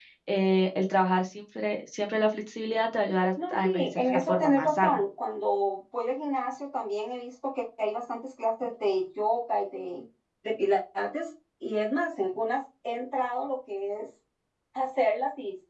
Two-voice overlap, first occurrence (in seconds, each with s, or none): 3.4 s